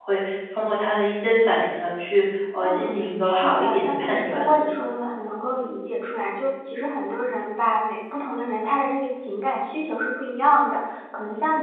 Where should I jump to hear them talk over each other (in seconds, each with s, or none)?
2.6 s